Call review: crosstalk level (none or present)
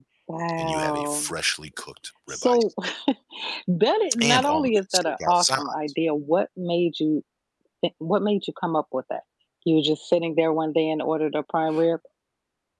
present